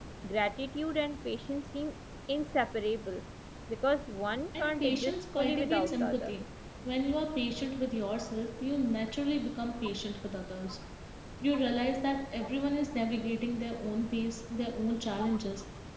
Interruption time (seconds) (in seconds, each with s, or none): 4.5 s